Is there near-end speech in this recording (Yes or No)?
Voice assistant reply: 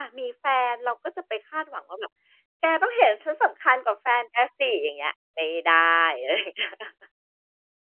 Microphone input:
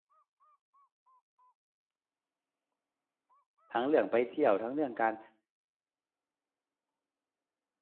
Yes